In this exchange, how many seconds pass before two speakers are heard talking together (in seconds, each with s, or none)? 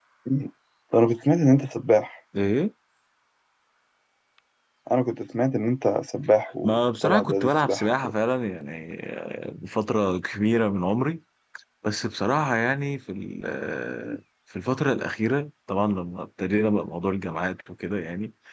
6.6 s